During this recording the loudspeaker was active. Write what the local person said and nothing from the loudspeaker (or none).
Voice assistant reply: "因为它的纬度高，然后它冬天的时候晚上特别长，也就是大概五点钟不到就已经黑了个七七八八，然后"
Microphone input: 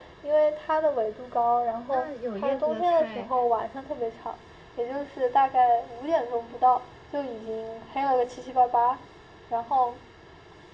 那有叶子的菜